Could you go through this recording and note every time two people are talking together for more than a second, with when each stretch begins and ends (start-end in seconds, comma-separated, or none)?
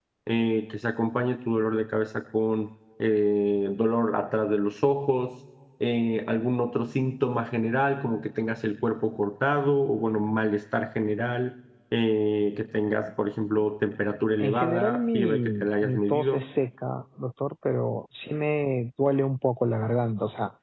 14.4-16.4